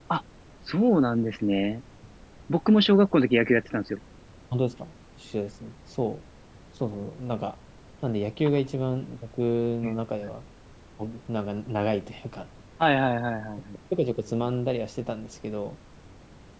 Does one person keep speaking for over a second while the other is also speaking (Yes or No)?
No